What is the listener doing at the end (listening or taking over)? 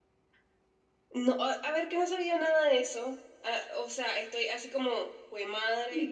taking over